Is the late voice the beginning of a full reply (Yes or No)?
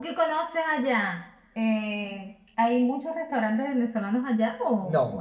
Yes